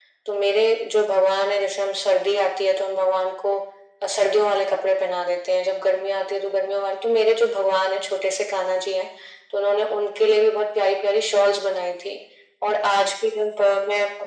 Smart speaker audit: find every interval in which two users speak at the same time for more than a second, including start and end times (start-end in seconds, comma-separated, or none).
none